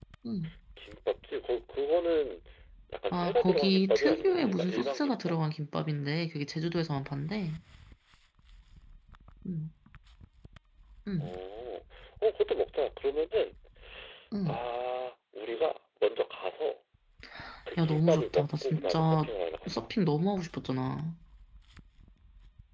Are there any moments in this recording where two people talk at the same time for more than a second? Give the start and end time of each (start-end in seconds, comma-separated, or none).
3.1-5.3, 17.8-19.3